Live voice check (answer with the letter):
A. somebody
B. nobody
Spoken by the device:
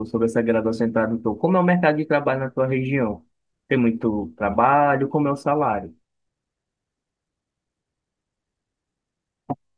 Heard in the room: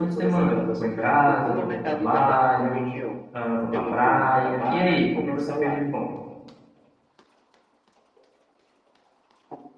A